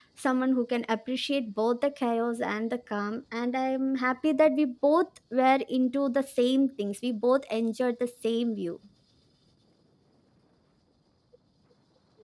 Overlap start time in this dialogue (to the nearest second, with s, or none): none